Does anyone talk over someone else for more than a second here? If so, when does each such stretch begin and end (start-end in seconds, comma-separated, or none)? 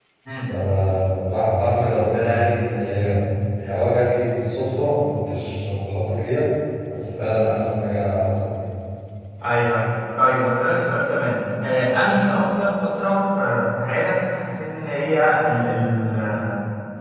none